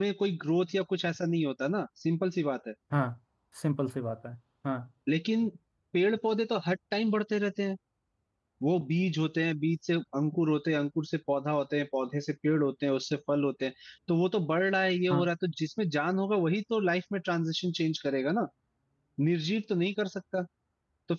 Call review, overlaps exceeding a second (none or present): none